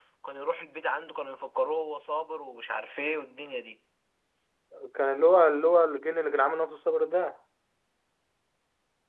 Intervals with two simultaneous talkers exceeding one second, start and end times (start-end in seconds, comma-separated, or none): none